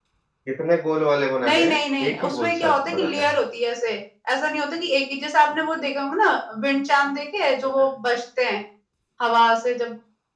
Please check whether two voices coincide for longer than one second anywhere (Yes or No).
Yes